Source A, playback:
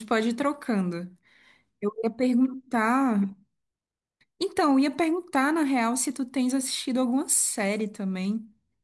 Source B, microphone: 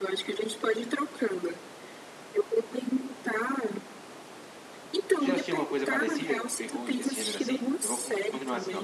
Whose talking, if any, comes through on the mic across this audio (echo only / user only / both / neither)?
both